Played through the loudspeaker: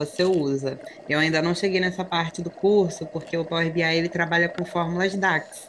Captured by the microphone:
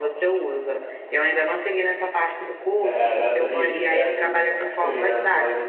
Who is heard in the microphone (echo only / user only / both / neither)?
both